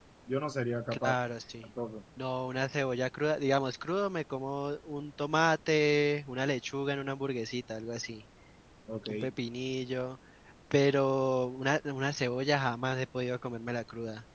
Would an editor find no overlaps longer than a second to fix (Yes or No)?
Yes